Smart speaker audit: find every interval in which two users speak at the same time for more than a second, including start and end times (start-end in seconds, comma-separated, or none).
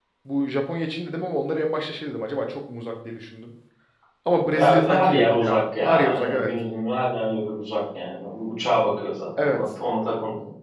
4.5-6.5